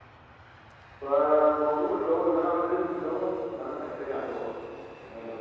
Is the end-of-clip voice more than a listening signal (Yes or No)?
Yes